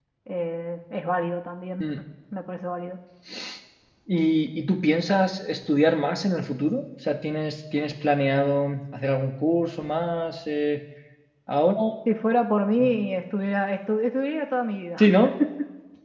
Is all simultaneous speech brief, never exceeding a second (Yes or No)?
Yes